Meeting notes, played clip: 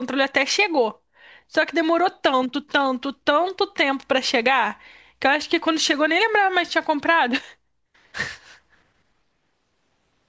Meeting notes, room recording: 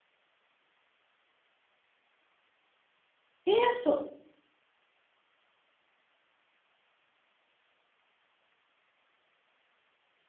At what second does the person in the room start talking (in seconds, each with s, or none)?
3.4 s